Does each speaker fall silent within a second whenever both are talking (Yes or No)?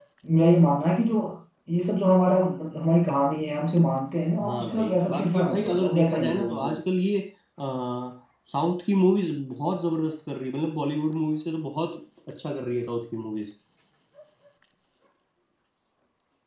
No